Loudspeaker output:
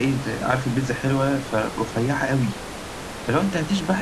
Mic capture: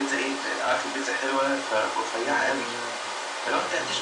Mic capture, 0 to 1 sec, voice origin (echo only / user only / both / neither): echo only